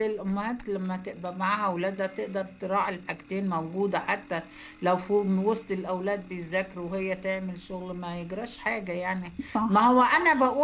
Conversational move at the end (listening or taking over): listening